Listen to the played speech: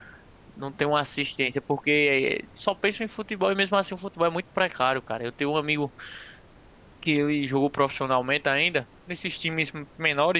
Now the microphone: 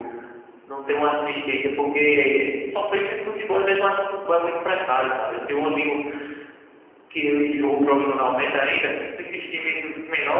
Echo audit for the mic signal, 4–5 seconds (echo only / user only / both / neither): echo only